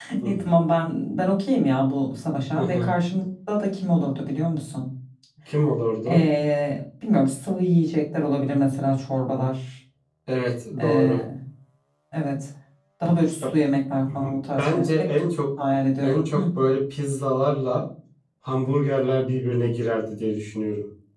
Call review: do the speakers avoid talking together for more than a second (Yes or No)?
No